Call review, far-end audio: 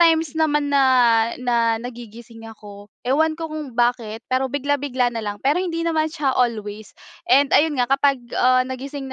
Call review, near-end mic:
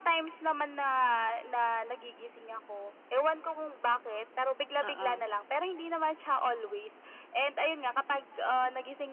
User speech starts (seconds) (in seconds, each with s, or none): 4.8 s